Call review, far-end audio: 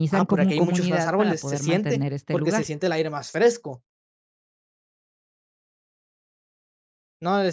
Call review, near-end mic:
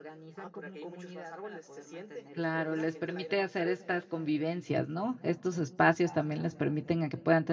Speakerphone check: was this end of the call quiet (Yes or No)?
No